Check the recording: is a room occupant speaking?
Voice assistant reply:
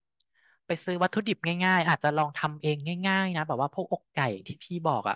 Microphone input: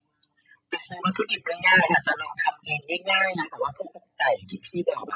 No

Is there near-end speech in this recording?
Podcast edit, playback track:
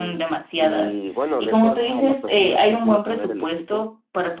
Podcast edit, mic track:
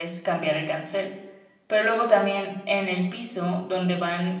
Yes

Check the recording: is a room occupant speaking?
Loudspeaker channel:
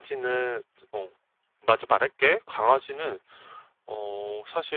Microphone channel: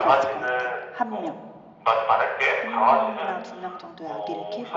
Yes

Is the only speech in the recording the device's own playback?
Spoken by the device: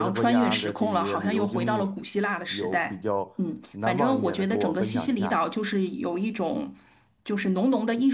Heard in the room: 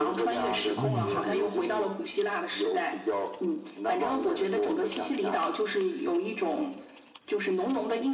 No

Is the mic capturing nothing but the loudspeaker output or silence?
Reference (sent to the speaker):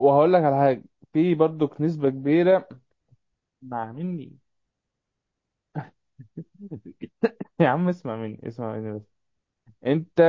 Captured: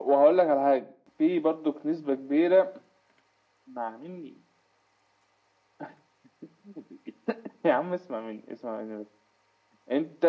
Yes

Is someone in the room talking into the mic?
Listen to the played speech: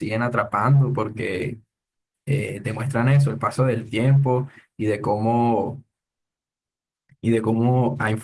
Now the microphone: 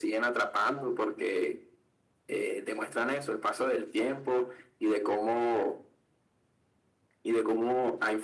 No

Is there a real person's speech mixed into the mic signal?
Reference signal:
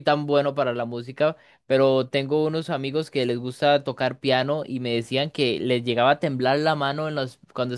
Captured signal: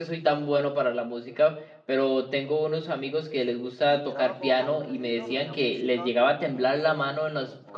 Yes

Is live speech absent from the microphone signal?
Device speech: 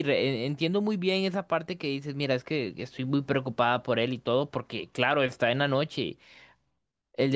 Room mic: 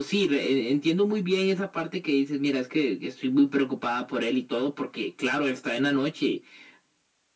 Yes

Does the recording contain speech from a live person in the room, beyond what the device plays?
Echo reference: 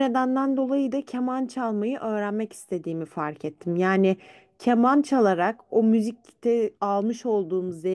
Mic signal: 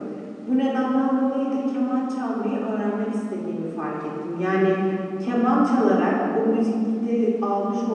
No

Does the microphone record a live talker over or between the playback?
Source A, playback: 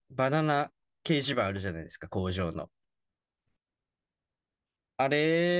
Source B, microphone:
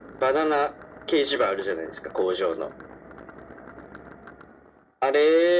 No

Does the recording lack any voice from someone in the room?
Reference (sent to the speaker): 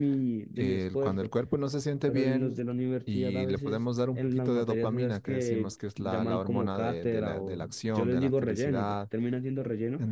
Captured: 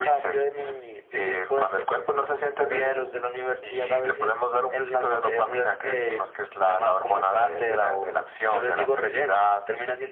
Yes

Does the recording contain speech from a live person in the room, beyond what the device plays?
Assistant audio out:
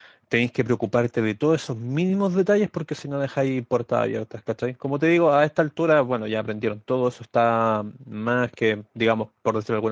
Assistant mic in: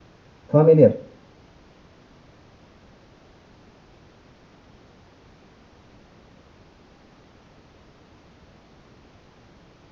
Yes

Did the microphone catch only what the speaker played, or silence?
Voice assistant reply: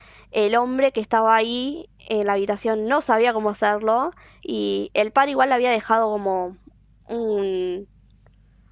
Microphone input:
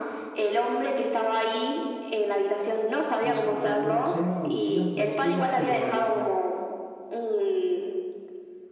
No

